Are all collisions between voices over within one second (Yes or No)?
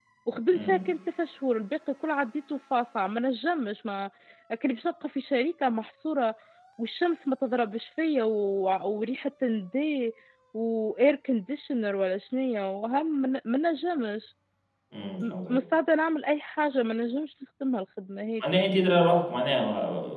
Yes